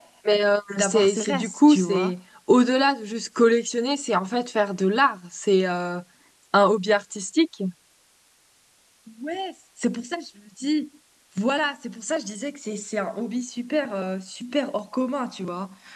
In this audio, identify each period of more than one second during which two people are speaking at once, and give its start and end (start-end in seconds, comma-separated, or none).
0.8-2.1